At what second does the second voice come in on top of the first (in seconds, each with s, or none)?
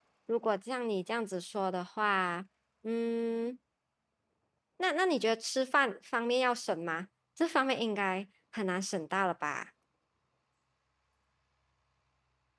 none